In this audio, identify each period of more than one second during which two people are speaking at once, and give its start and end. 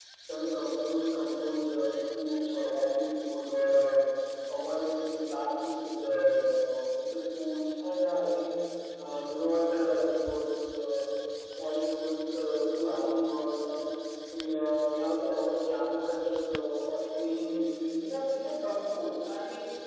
none

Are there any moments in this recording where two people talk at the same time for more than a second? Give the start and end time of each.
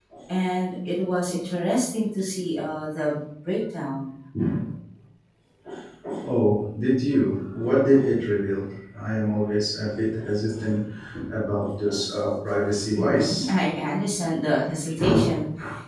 none

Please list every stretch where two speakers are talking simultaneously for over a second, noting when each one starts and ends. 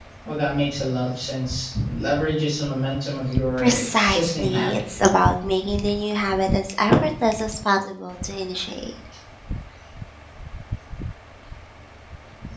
3.6-4.8

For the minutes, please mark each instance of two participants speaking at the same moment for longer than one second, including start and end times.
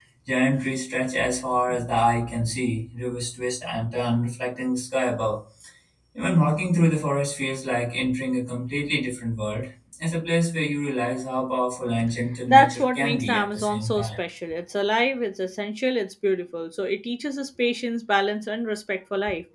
12.5-14.1

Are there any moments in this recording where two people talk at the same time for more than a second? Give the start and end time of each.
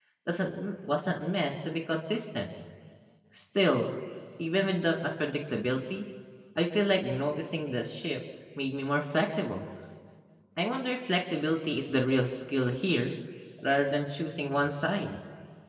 none

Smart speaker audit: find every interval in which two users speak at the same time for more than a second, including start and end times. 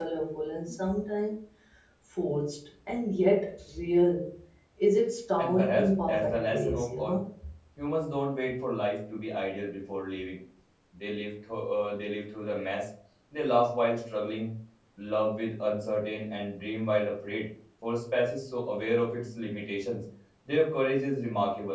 5.4-7.2

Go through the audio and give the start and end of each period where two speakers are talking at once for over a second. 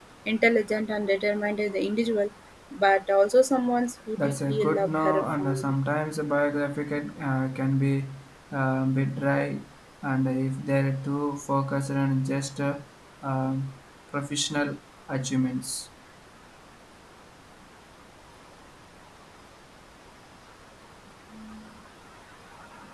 4.2-5.6

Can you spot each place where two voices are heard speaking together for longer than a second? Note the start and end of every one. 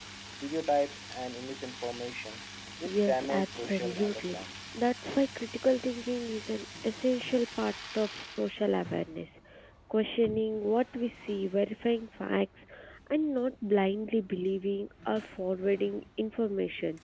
3.0-4.4

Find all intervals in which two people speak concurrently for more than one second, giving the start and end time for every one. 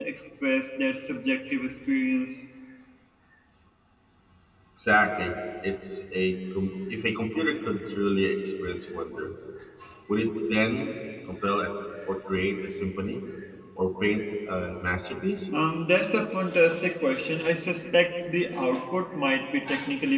none

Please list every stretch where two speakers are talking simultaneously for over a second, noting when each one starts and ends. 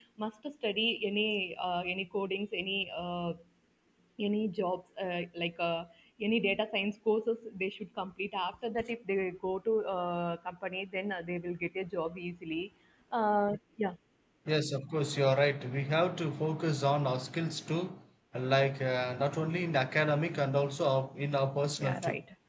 none

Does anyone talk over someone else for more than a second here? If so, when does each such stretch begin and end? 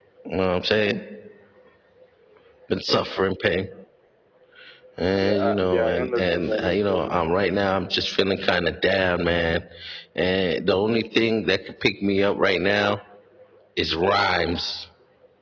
5.2-7.2

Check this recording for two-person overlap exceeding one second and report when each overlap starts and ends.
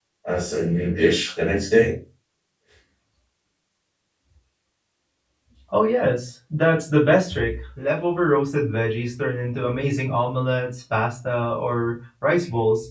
none

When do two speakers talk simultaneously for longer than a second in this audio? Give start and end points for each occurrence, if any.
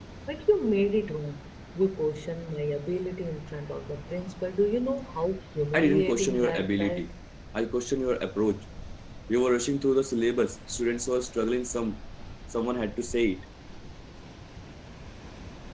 5.7-7.1

